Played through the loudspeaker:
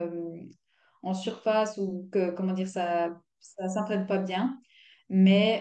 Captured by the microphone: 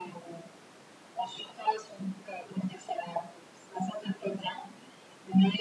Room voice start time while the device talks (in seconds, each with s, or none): none